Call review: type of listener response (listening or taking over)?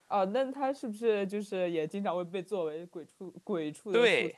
taking over